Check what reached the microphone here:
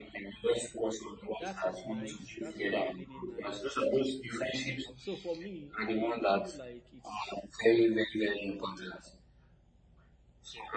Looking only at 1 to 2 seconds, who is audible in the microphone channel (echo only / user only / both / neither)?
both